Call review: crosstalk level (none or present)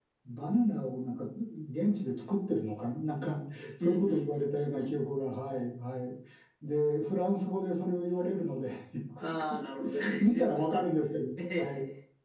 present